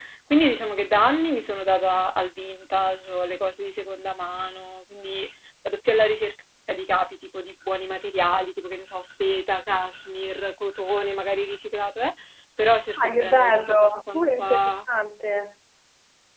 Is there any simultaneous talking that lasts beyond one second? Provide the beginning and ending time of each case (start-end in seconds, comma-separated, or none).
13.0-14.6